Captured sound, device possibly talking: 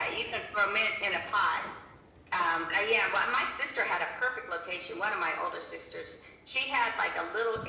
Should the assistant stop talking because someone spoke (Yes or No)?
No